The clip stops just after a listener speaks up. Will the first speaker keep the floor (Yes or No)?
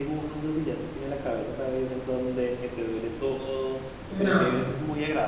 Yes